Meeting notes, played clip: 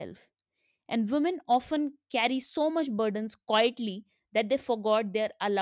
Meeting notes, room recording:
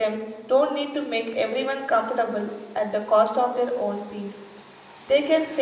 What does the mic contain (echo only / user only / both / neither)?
user only